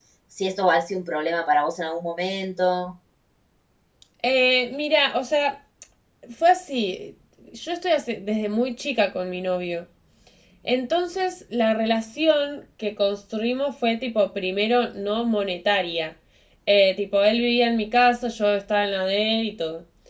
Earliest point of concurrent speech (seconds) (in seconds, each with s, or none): none